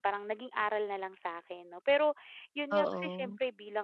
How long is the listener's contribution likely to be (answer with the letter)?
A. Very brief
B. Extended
A